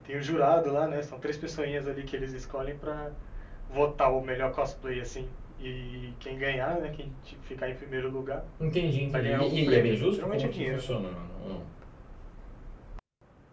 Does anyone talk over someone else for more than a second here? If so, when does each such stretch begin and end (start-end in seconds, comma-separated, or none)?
9.1-10.9